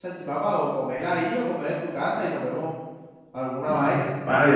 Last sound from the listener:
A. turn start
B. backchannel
A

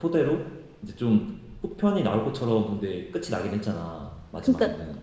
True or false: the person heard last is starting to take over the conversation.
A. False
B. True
B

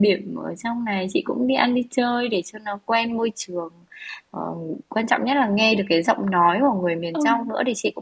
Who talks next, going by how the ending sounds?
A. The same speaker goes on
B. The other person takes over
A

